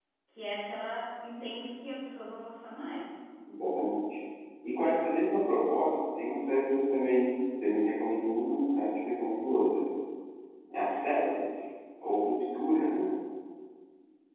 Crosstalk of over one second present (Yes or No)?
No